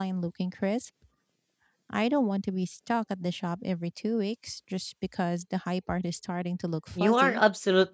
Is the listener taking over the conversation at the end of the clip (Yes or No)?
Yes